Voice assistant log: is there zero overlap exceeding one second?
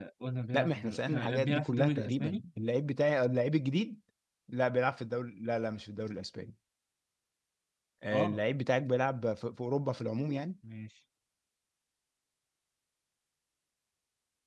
No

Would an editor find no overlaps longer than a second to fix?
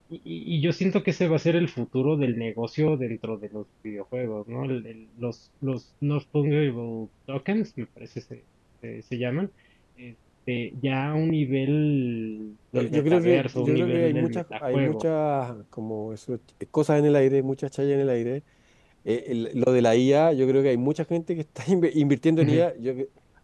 No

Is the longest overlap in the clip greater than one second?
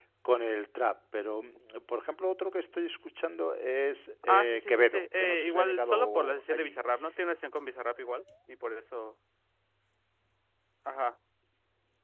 Yes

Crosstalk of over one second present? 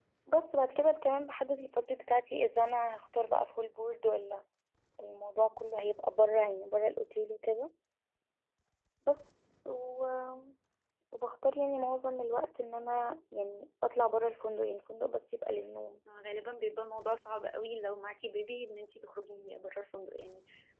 No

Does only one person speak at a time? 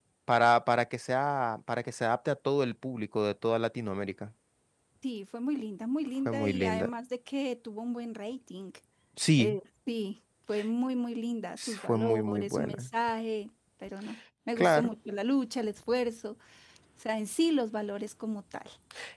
No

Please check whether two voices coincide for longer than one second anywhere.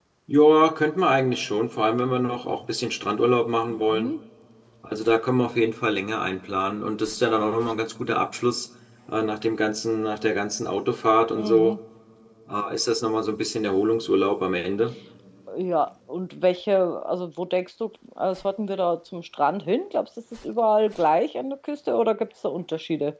No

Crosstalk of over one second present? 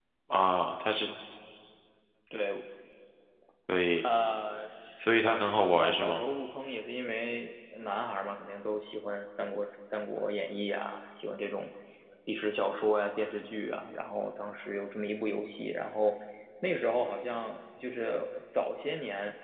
Yes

